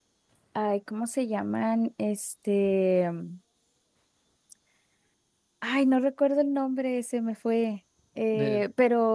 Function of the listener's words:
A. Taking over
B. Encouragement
B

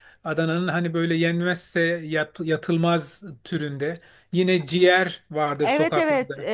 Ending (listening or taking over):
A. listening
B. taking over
B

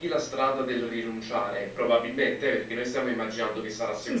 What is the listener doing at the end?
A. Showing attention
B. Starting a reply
A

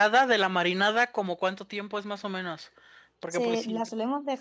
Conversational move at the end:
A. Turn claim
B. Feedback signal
A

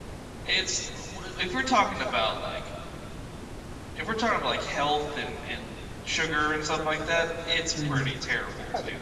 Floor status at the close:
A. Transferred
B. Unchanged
A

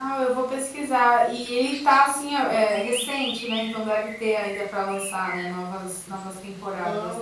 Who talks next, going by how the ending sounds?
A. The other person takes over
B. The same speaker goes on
A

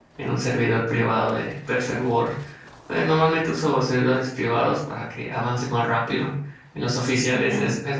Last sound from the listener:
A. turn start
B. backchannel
B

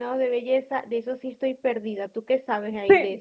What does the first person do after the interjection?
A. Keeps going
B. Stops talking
B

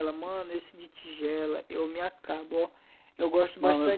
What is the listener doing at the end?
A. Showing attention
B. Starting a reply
A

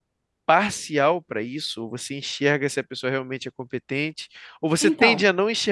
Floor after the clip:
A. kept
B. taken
A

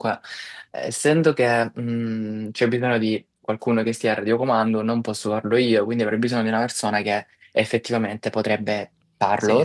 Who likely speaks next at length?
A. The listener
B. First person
B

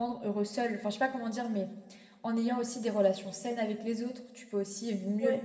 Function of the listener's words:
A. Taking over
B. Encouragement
B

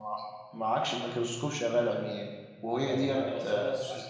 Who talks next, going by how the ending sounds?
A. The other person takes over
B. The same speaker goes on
A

